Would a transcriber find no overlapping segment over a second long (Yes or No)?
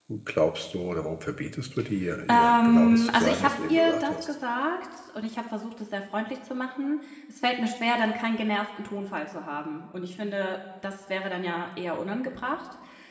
No